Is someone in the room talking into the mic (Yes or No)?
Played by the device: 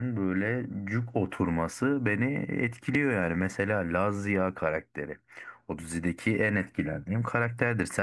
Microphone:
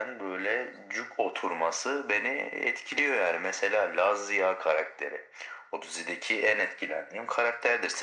No